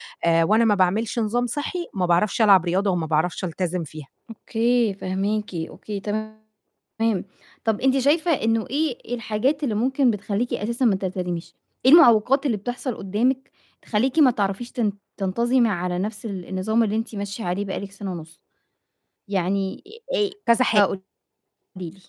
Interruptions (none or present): none